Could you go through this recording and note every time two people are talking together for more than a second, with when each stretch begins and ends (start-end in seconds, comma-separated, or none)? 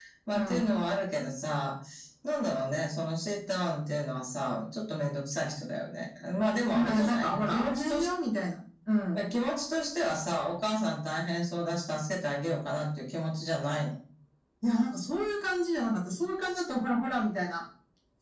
6.7-8.1